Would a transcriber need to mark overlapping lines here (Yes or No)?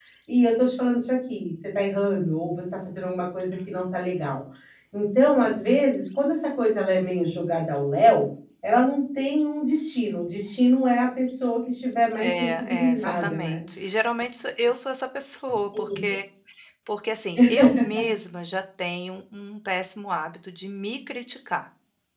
Yes